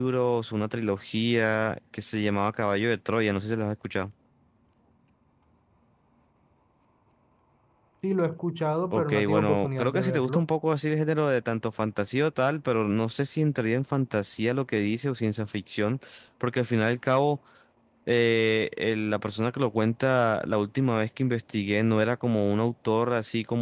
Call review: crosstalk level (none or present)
present